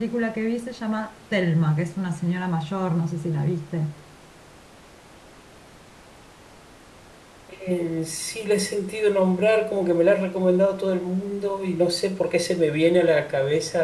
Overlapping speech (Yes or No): No